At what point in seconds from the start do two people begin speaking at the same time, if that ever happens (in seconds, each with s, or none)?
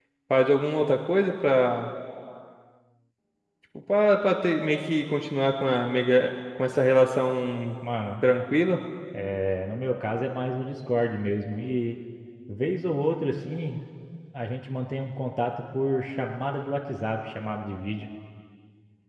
none